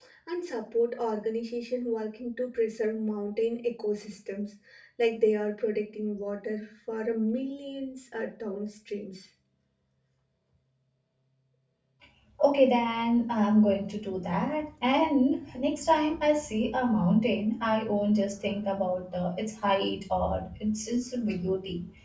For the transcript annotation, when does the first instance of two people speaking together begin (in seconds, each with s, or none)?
none